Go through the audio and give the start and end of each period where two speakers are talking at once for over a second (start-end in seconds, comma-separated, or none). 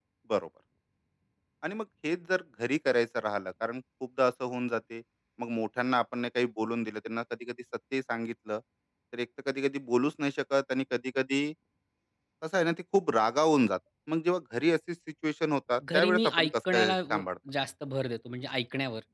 15.9-17.2